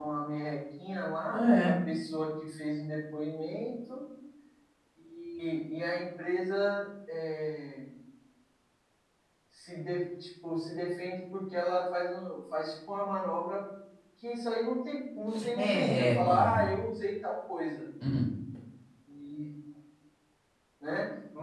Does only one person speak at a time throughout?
No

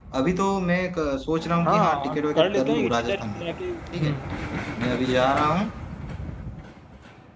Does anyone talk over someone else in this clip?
Yes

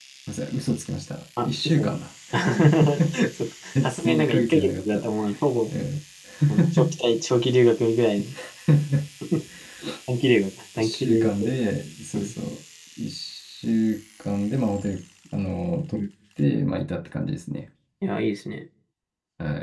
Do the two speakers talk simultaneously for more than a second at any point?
Yes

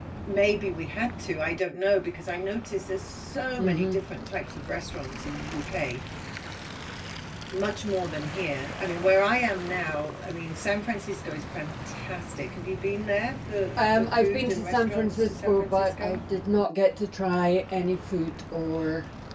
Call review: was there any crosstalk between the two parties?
Yes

